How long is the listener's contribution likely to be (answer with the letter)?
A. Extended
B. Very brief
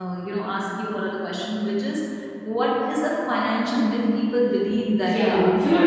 A